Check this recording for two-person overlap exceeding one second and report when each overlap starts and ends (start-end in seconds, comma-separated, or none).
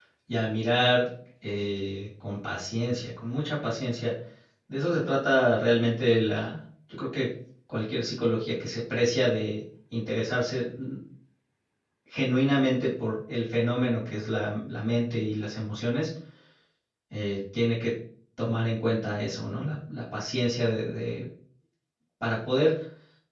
none